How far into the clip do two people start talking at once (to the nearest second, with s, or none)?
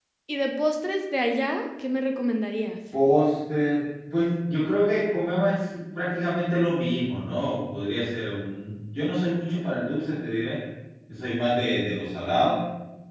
none